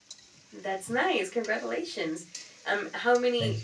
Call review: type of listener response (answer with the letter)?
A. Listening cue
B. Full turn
A